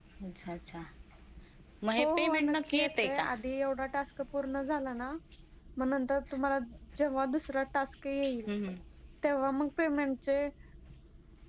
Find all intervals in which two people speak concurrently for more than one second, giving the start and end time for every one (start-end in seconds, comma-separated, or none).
2.0-3.3